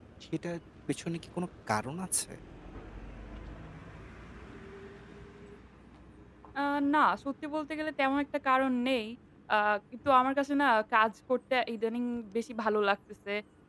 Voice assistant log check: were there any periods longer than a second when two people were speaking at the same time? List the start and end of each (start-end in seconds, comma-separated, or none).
none